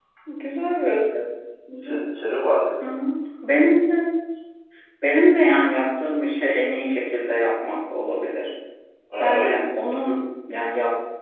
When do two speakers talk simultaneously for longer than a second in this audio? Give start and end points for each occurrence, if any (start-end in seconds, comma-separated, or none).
none